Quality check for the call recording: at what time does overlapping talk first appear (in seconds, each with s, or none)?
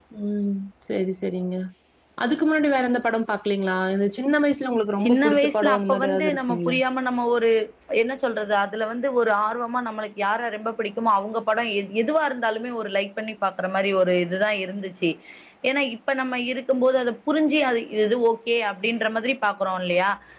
5.0 s